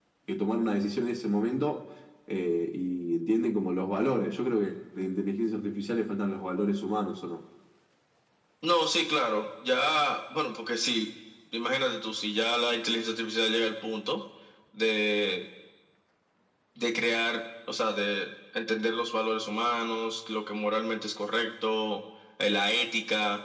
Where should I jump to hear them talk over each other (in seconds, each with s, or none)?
none